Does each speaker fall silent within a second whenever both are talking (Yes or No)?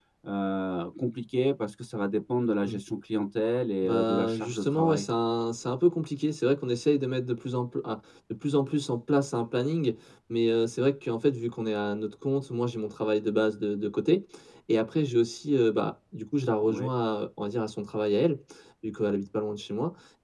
No